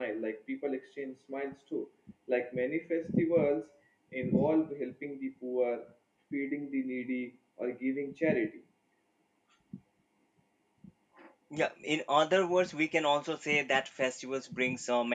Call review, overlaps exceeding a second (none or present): none